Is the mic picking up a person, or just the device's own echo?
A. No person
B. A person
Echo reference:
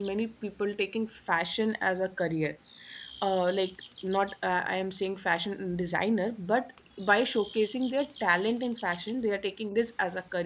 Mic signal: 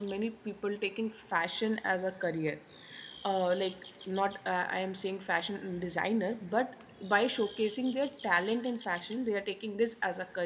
A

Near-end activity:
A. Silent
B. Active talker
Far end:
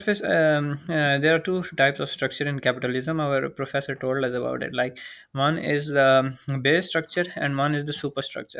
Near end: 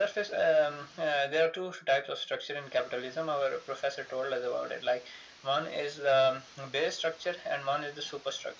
A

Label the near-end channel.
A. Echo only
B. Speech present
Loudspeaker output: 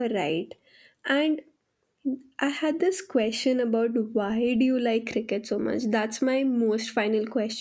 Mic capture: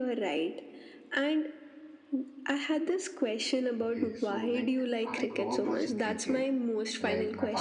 B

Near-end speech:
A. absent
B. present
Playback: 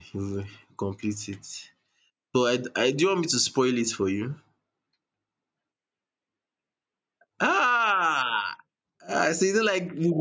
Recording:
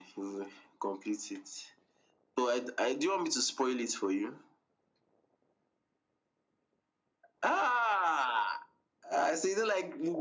A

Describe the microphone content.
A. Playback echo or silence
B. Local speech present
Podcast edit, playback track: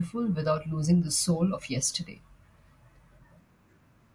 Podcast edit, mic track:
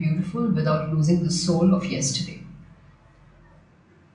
A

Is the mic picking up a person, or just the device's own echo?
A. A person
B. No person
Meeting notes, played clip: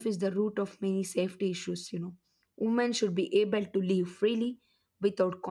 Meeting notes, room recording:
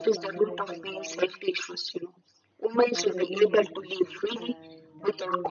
A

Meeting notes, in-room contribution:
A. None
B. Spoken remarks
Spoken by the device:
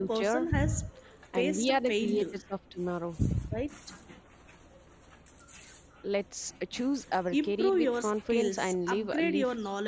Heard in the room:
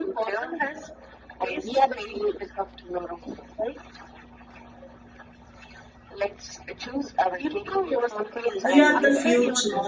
B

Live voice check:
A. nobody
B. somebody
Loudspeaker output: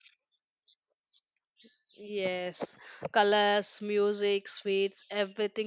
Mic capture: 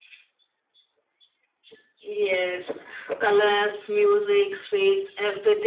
A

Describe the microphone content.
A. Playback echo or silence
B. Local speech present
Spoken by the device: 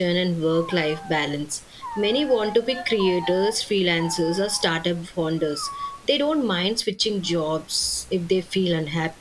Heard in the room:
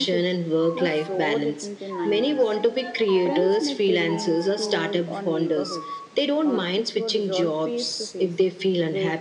B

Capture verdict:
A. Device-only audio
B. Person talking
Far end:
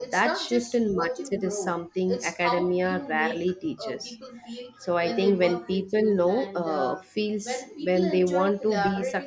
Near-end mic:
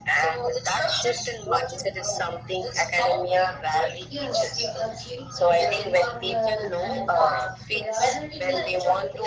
B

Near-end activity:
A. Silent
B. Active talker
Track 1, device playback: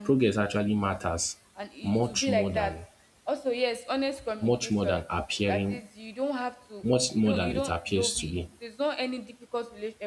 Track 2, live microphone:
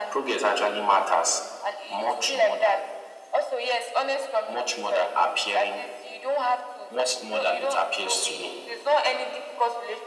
A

